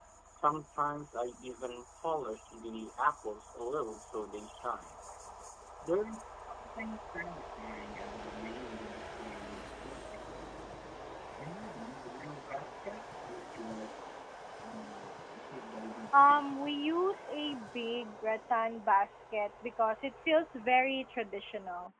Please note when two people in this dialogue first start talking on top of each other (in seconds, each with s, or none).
16.1 s